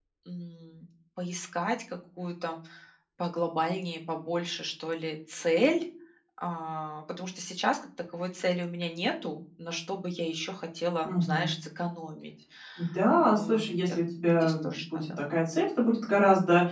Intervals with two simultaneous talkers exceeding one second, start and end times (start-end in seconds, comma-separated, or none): 13.2-15.2